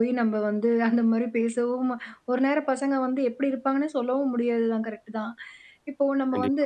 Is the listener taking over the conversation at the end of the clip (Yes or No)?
No